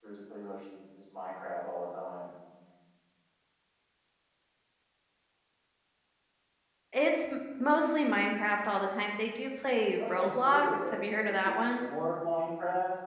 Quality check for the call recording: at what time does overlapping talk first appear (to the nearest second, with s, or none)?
10 s